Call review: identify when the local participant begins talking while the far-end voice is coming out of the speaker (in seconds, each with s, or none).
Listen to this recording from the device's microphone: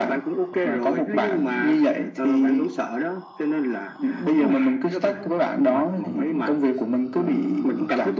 none